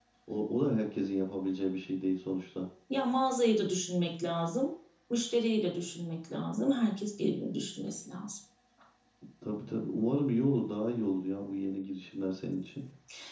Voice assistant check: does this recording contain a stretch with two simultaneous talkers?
No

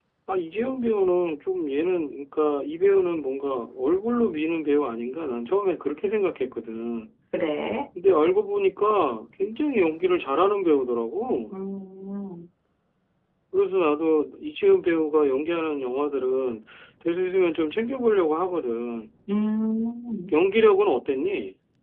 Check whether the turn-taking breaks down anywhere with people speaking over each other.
No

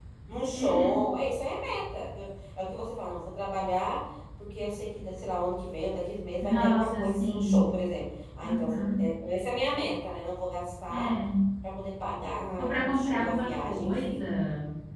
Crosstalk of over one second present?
Yes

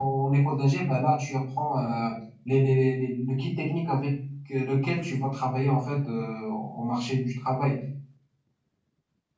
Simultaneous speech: No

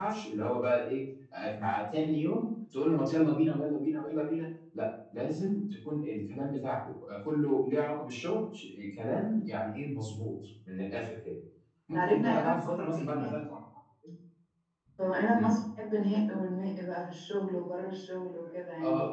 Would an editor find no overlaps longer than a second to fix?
No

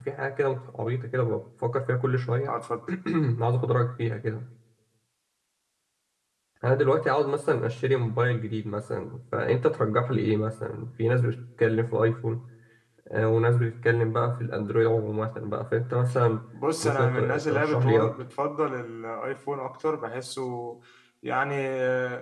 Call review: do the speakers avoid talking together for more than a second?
No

